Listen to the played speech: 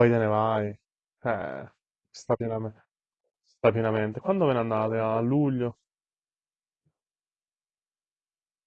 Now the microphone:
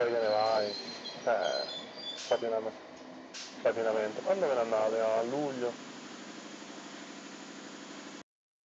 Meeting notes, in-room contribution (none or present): none